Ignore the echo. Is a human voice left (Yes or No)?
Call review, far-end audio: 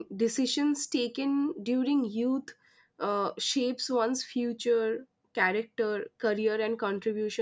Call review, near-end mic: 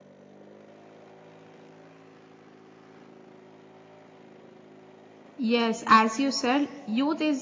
Yes